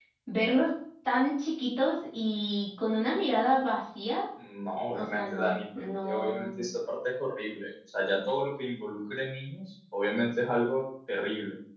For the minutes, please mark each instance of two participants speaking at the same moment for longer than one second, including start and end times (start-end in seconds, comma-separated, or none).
4.9-6.6